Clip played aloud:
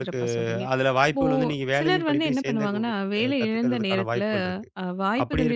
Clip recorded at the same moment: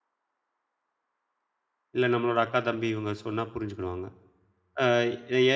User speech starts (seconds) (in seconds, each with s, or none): 2.0 s